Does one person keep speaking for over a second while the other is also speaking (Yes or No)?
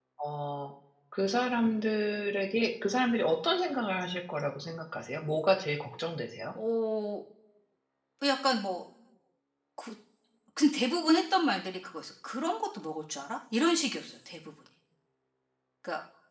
No